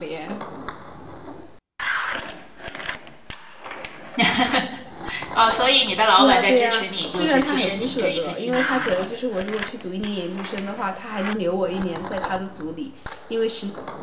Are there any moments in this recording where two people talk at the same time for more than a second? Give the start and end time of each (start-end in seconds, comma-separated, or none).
6.2-9.1